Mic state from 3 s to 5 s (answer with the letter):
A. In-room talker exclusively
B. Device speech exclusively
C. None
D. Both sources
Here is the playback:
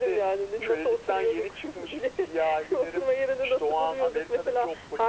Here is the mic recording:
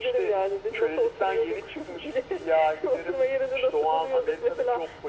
B